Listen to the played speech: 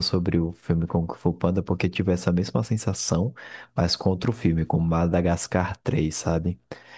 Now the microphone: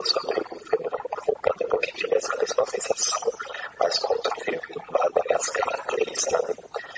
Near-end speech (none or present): none